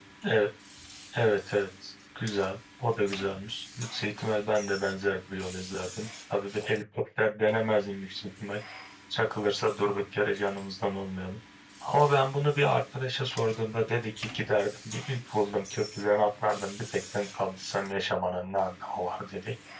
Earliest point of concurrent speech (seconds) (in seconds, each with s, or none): none